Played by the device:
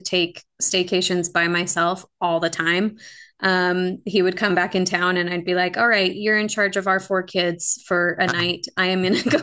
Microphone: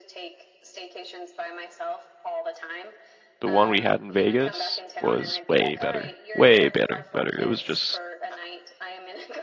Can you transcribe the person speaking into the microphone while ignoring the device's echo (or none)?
the one we had in Vegas was way better. Way better, better. It was just